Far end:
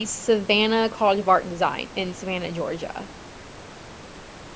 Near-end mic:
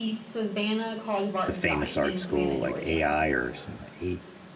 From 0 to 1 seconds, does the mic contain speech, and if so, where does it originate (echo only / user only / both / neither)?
echo only